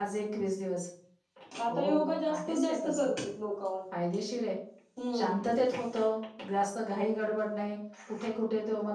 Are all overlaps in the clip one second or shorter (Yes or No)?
No